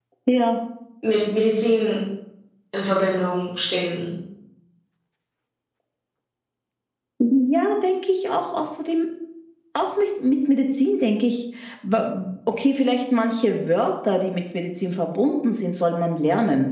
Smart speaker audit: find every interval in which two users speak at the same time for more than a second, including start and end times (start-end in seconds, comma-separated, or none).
none